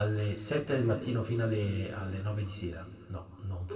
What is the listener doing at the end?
taking over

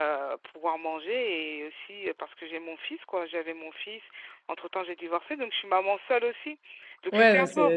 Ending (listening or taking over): taking over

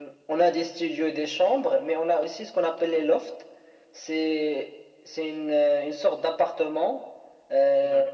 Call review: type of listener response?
listening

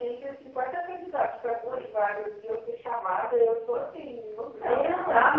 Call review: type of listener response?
taking over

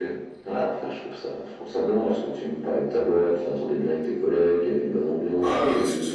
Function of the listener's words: taking over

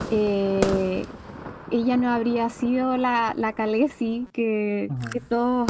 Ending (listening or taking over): listening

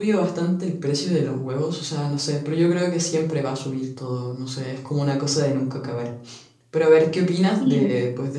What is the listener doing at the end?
listening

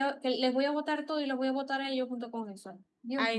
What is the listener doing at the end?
taking over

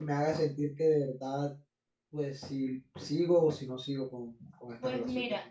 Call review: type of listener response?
taking over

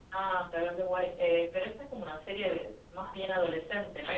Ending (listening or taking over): taking over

